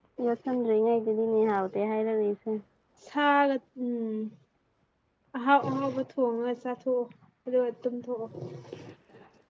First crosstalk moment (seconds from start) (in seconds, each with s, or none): none